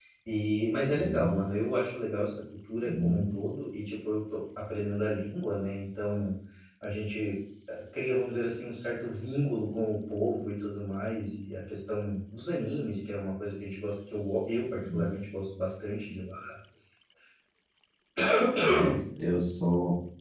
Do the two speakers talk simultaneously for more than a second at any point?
No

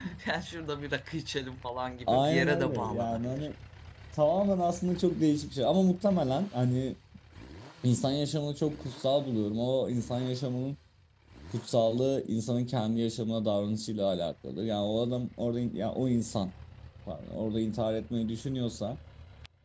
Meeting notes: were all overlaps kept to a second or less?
No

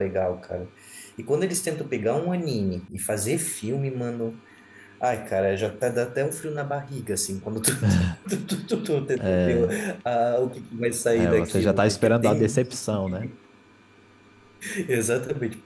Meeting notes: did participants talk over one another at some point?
Yes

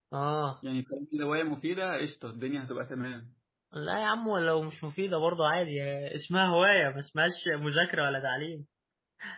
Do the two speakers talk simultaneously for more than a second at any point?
No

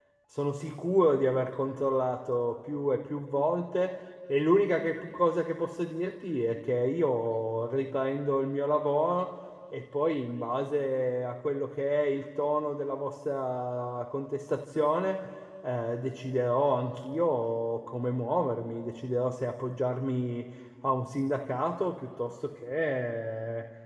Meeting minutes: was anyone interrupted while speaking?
No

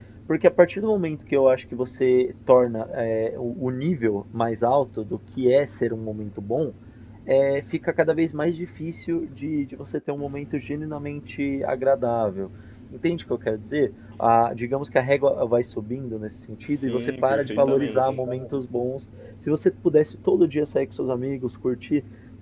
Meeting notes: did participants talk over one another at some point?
Yes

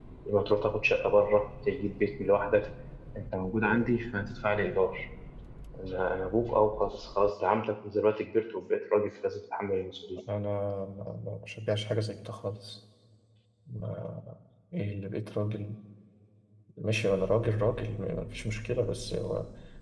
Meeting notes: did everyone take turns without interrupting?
Yes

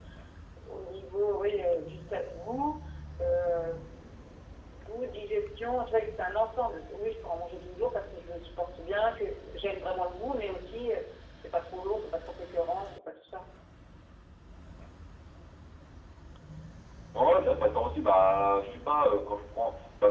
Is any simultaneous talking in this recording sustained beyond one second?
No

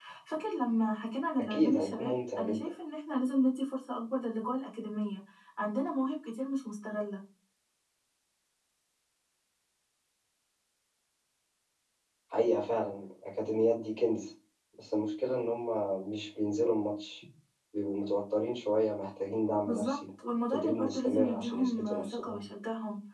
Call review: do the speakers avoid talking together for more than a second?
No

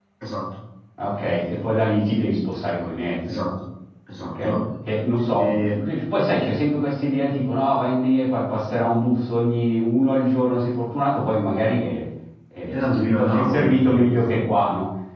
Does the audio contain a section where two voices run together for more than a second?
Yes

